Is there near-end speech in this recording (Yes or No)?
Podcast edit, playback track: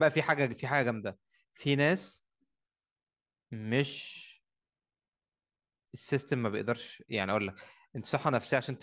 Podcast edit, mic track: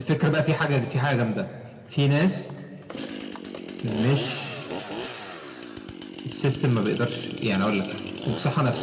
No